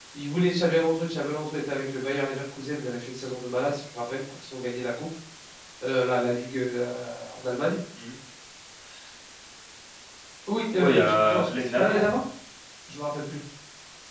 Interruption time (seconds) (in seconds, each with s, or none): 10.8 s